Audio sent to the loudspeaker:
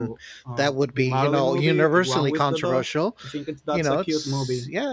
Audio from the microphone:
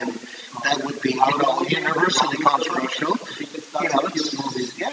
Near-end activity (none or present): none